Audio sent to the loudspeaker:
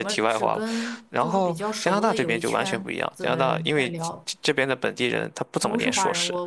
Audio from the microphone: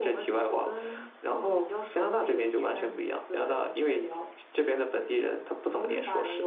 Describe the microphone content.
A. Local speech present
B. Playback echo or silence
B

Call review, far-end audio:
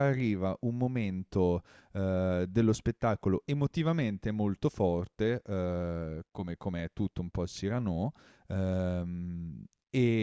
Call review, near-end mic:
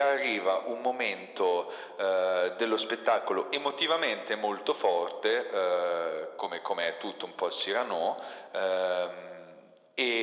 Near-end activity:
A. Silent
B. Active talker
A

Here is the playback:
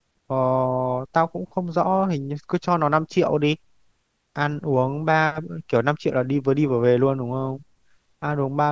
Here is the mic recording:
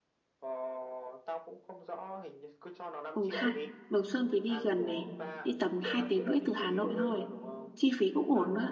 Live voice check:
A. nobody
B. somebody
B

